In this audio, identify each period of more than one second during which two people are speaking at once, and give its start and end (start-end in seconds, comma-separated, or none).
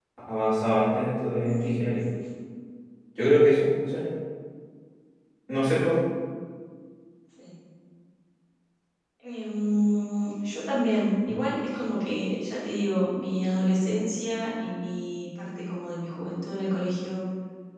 none